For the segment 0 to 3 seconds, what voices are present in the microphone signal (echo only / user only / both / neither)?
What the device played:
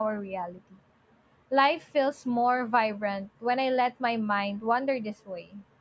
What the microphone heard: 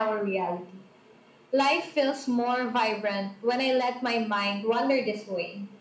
echo only